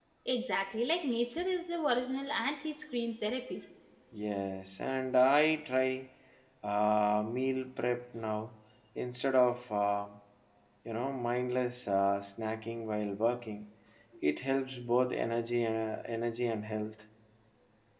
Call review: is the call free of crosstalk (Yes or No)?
Yes